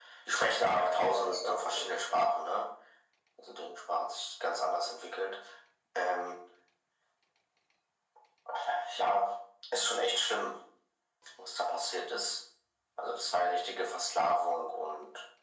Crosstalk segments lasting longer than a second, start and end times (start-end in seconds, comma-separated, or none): 0.7-2.3